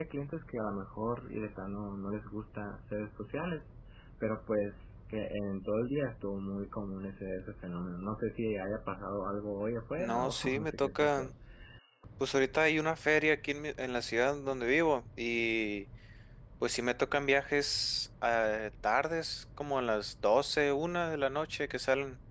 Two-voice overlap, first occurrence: 10.0 s

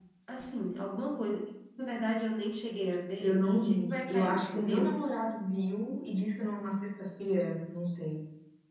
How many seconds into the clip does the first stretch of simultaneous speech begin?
3.2 s

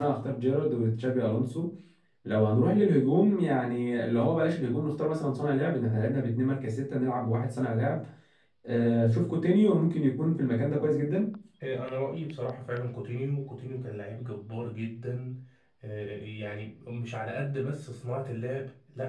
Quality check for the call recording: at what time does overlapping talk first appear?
none

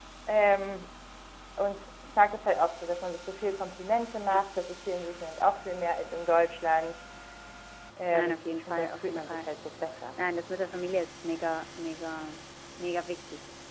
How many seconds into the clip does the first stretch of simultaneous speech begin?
8.1 s

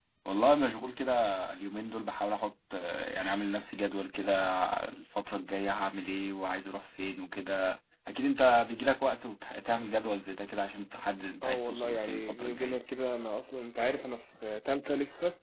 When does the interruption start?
11.4 s

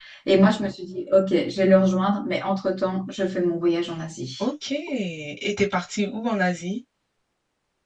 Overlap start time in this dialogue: none

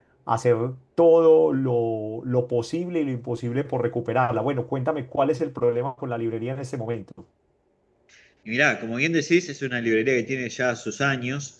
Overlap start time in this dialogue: none

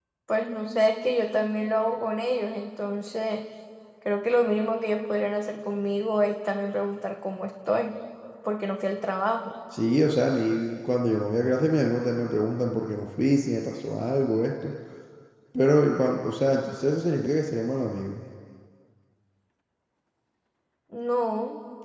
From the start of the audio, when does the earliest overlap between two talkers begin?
none

